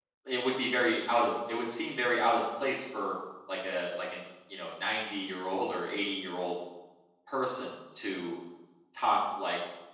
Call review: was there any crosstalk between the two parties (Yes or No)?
No